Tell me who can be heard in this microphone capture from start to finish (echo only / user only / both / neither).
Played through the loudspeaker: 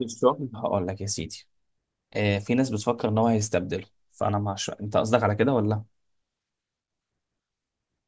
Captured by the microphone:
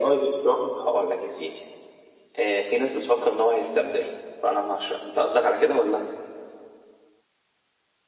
echo only